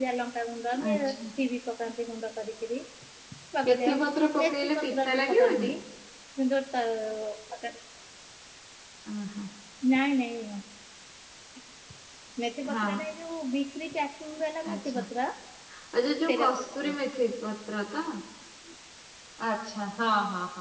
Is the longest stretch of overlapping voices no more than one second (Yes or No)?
No